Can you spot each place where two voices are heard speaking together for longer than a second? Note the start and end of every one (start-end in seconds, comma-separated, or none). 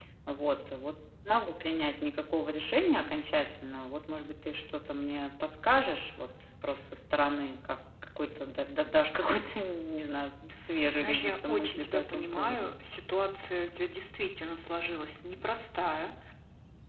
11.0-12.7